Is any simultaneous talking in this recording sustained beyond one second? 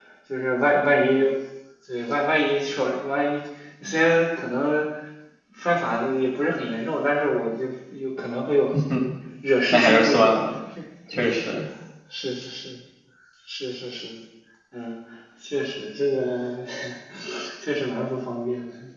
No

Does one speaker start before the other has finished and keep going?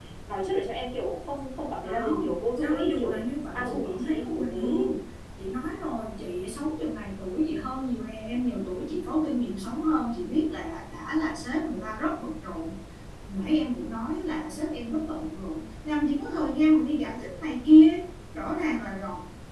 Yes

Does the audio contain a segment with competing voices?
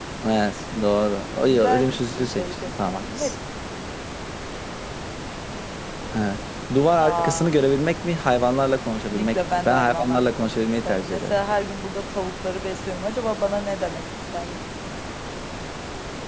Yes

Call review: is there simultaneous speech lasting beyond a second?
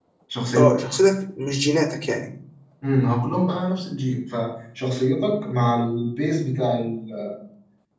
No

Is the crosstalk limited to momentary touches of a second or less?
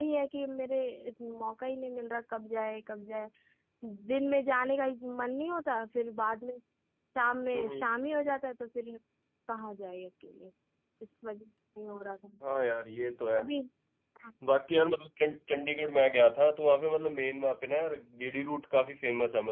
Yes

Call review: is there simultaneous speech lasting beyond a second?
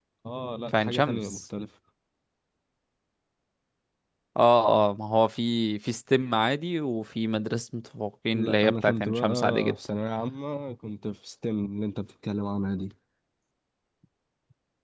Yes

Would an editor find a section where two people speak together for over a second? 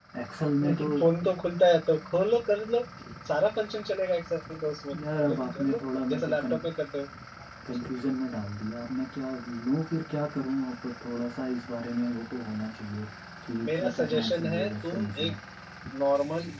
Yes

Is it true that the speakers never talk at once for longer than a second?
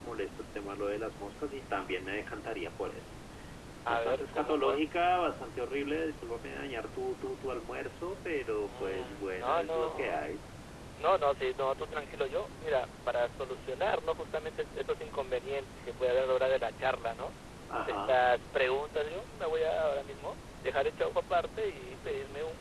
No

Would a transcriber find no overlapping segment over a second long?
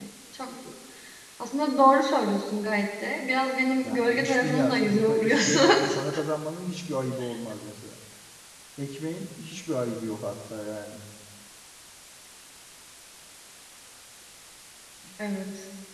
No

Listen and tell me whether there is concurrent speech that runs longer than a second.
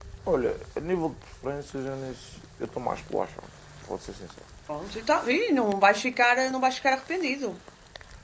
No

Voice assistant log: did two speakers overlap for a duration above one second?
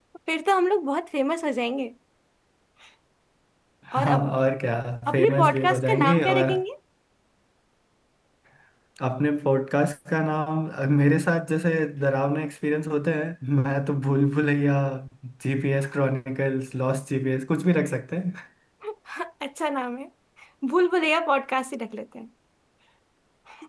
Yes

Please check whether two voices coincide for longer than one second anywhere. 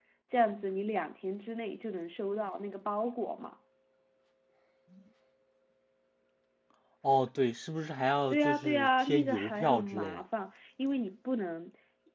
Yes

